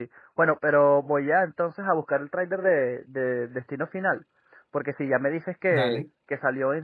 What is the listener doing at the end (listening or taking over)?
listening